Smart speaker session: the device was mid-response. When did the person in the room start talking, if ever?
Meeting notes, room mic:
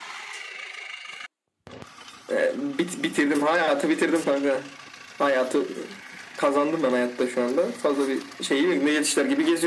none

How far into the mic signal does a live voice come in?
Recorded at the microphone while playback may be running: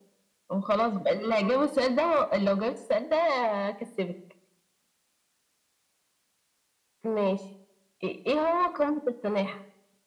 none

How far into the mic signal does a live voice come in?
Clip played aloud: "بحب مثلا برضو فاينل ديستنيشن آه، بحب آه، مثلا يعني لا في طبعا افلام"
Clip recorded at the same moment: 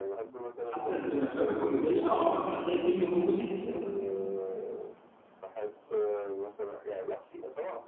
0.6 s

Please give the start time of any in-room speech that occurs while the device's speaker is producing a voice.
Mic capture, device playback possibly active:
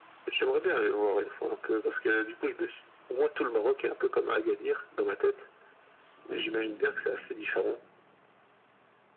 6.3 s

